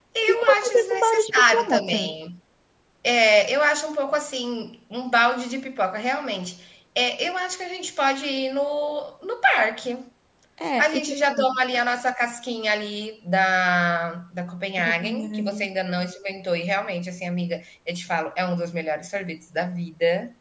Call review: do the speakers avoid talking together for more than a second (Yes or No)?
No